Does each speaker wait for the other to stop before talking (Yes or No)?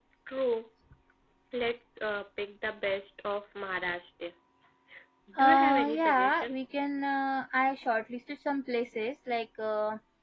No